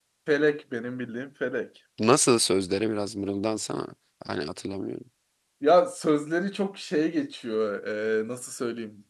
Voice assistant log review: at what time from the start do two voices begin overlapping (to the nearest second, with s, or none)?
none